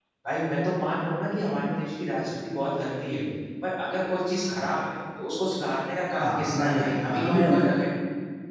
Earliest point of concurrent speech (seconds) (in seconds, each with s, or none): 6.1 s